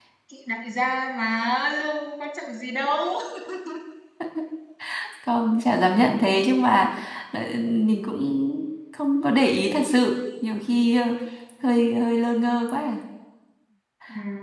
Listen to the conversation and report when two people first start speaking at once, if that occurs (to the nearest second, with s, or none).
none